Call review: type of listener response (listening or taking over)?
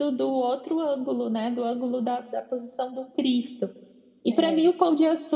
listening